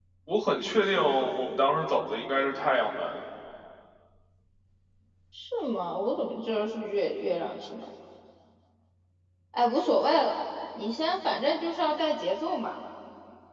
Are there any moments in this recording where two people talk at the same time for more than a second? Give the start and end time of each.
none

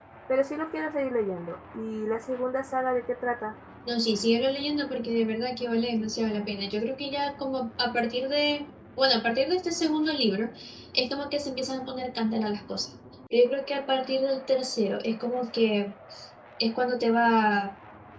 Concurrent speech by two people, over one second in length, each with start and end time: none

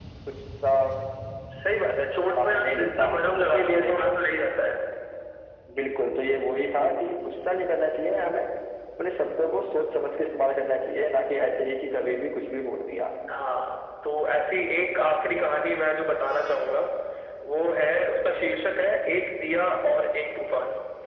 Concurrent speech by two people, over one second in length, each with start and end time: 2.4-4.0

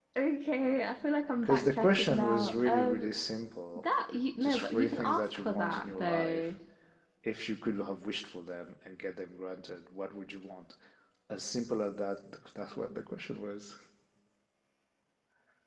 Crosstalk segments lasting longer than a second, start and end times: 1.4-3.1, 4.4-6.5

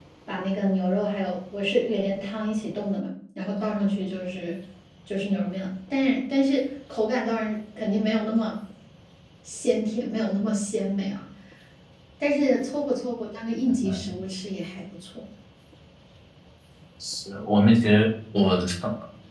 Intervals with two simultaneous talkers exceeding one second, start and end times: none

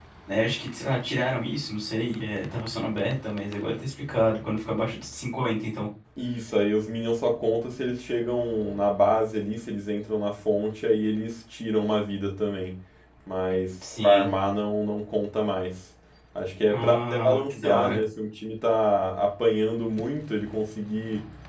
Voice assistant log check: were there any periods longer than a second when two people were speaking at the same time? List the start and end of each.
16.7-18.0

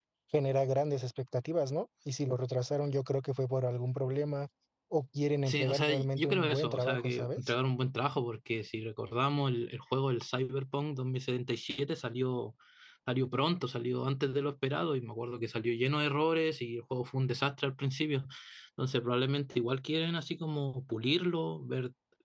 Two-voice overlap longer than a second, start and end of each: 5.5-7.5

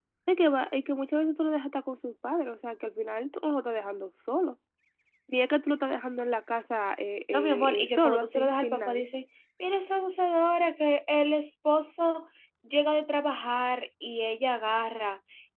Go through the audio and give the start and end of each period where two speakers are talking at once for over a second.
7.3-9.0

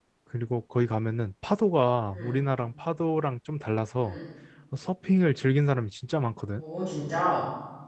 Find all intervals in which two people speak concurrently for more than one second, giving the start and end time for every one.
none

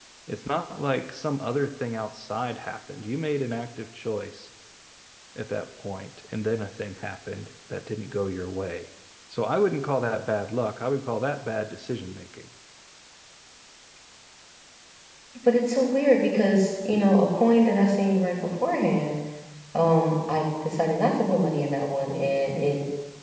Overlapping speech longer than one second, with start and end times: none

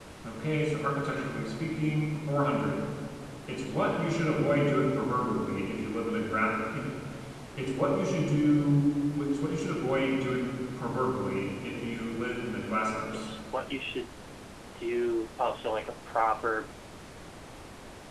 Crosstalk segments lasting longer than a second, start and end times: none

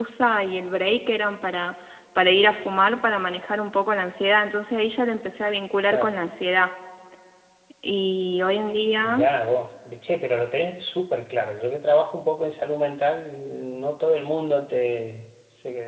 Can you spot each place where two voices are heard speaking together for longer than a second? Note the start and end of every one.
none

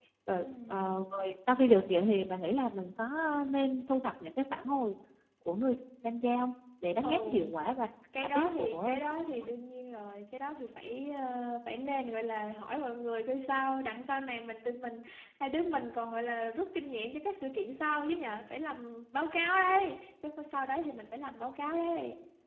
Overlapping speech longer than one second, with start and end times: 8.2-9.4

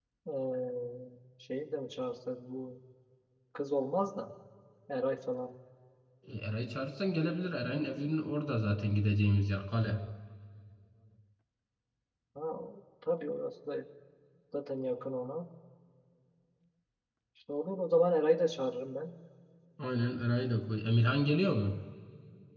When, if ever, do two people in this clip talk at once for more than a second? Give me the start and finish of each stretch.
none

